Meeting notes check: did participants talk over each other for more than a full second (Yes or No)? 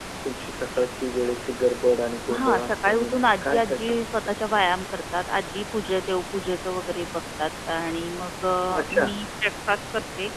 Yes